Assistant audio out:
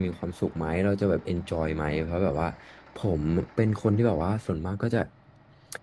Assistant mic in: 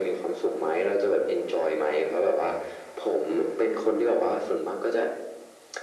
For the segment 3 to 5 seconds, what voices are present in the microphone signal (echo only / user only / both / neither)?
echo only